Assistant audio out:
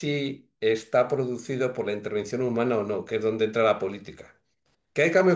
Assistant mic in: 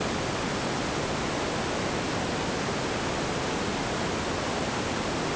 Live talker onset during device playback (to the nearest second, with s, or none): none